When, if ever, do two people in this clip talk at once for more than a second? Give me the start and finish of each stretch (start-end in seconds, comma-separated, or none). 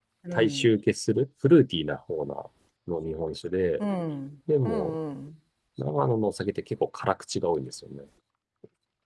none